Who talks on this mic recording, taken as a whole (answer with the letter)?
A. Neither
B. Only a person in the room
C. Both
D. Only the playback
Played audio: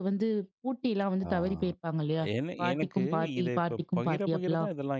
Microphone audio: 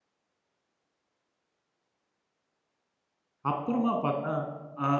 B